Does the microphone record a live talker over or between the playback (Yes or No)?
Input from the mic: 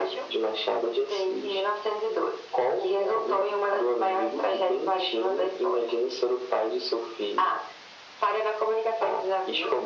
No